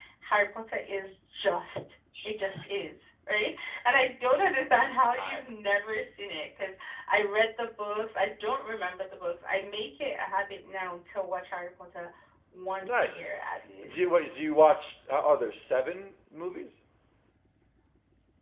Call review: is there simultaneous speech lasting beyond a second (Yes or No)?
No